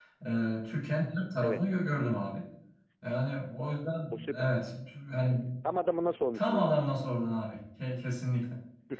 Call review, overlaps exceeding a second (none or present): none